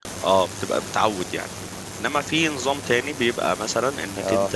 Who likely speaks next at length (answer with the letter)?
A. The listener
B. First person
B